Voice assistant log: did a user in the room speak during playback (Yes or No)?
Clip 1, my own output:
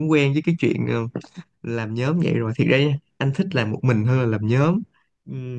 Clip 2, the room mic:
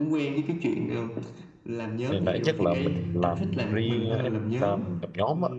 Yes